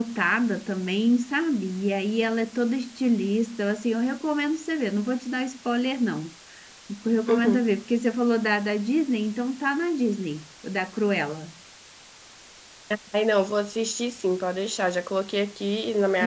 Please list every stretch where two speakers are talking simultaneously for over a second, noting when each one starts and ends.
none

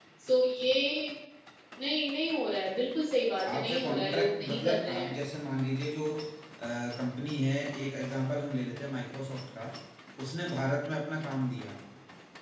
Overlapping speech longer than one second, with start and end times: 3.5-5.2

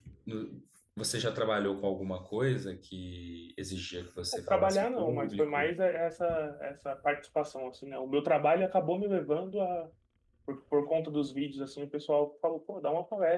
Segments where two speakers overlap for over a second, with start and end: 4.3-5.7

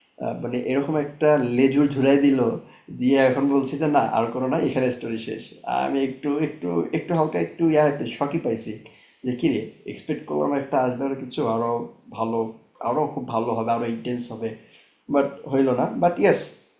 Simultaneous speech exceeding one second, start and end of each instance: none

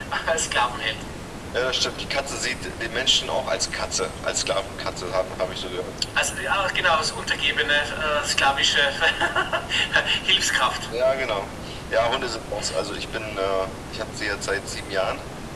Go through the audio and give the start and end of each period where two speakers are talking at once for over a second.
none

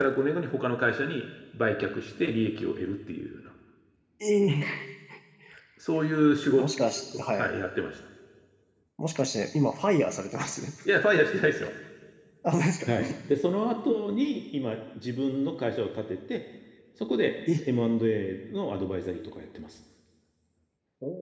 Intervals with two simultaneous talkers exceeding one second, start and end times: none

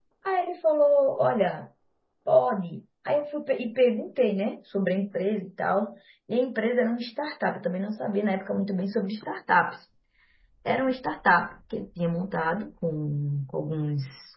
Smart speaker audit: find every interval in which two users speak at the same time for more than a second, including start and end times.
none

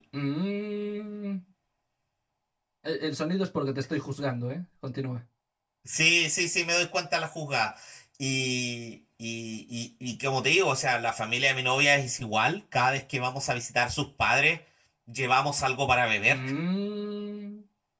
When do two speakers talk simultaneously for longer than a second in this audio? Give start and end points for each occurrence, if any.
none

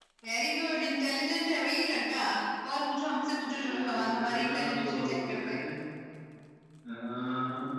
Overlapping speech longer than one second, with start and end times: 3.4-5.5

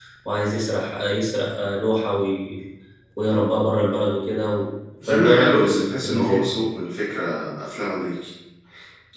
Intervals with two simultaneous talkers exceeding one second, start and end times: 5.1-6.5

